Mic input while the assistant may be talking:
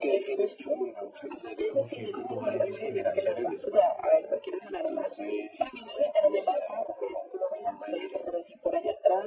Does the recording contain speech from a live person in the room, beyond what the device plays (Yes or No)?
Yes